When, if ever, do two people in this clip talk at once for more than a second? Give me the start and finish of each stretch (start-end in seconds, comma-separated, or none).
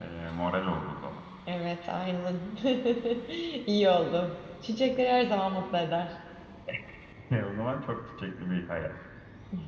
none